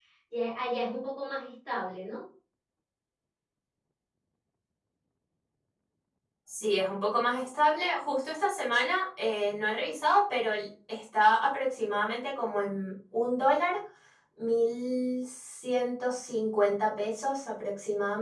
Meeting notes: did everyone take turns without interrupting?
Yes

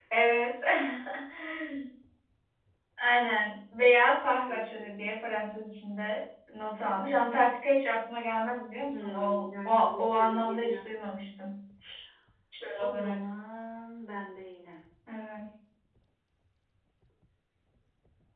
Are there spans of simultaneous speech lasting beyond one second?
Yes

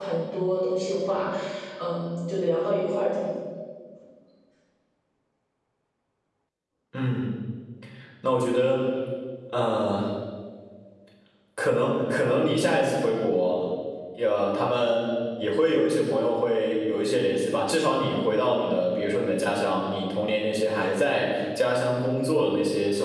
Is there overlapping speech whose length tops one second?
No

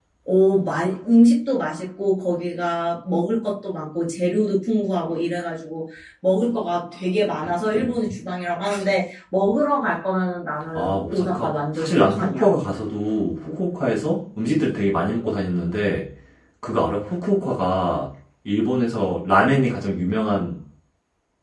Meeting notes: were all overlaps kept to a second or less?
No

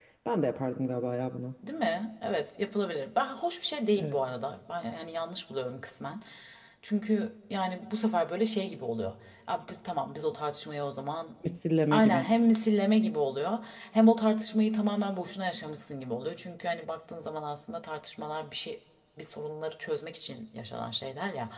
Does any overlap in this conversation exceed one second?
No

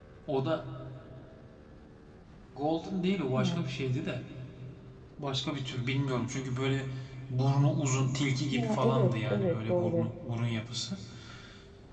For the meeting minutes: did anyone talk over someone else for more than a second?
Yes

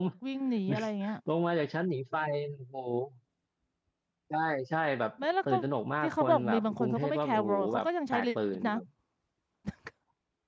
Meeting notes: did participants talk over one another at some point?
Yes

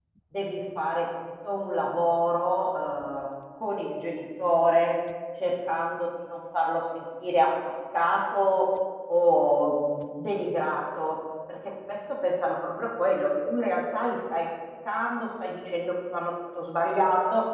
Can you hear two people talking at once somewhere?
No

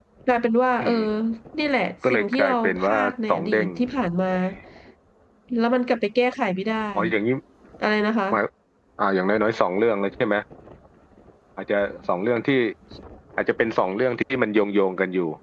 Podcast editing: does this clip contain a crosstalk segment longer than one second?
Yes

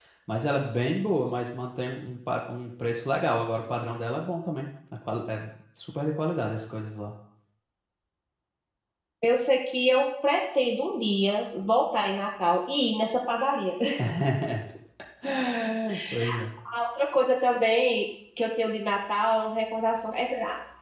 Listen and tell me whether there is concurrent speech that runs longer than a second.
No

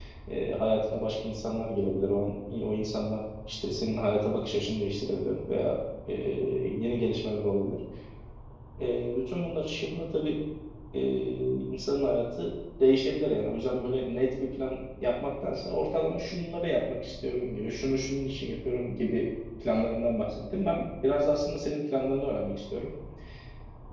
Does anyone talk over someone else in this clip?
No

